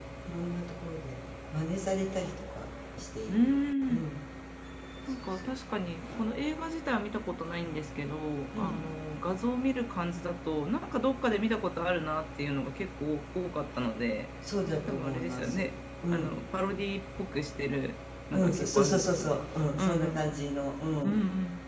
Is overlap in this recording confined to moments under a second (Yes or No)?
No